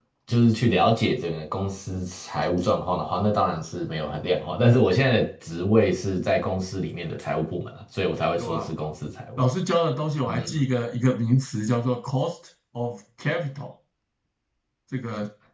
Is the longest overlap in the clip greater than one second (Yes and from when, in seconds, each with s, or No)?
No